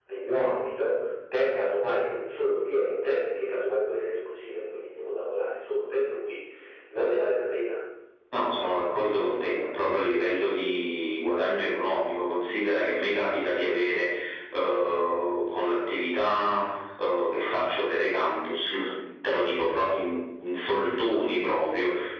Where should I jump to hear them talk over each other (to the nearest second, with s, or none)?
none